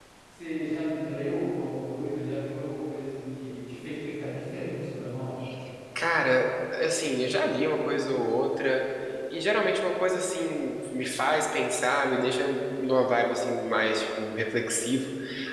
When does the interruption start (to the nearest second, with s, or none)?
none